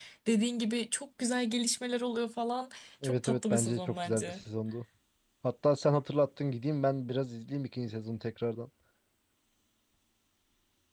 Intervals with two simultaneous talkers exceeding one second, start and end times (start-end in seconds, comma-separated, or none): 3.0-4.4